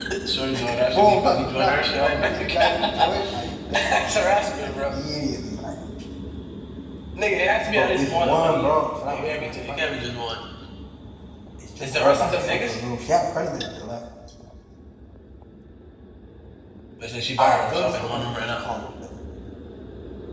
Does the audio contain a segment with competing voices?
Yes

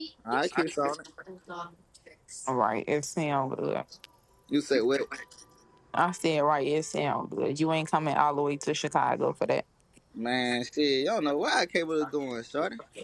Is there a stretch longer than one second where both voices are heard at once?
No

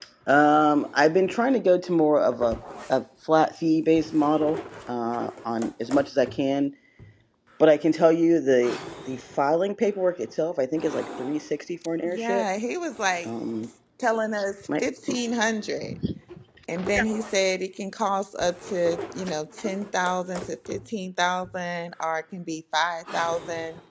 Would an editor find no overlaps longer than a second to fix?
Yes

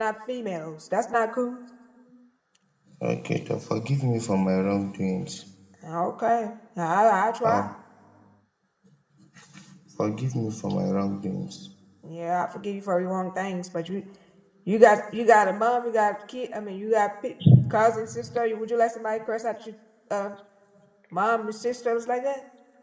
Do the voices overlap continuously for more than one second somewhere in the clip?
No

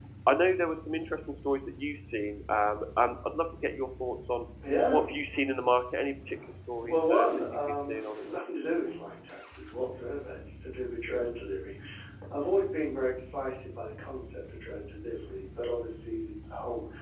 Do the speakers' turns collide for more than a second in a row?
Yes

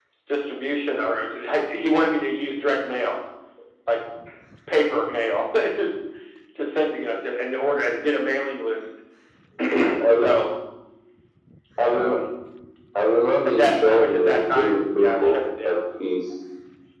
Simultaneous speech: Yes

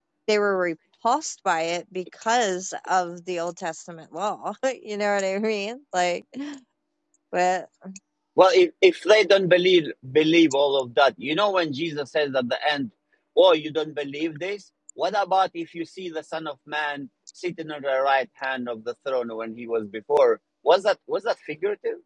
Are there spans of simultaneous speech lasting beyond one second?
No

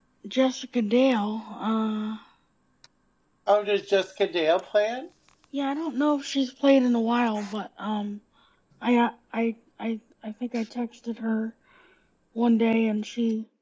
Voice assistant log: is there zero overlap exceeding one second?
Yes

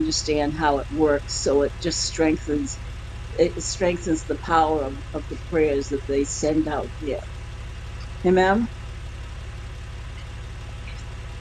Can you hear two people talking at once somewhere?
No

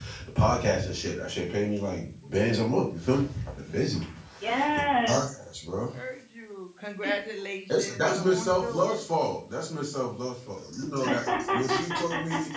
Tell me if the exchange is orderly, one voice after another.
No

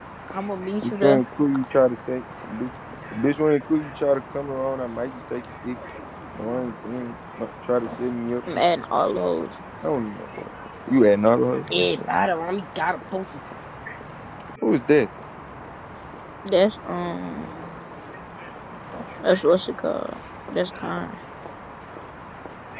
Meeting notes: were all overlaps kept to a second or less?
Yes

